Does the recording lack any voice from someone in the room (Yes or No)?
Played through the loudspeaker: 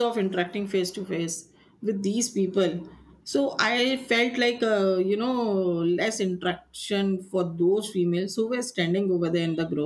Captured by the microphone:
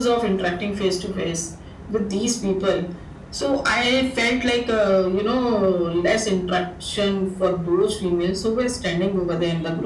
Yes